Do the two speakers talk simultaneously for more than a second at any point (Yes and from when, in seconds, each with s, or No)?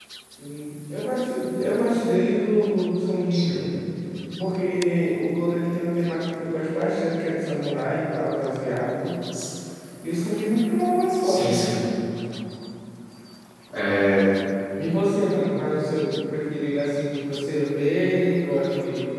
No